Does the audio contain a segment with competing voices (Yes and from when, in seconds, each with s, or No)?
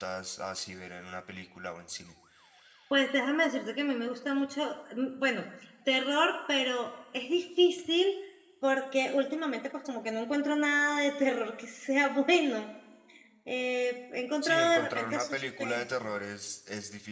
Yes, from 14.4 s